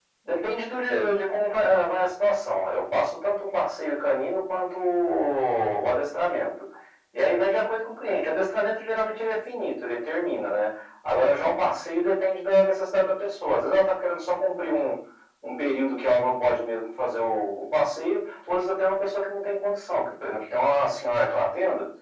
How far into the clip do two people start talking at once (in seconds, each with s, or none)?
none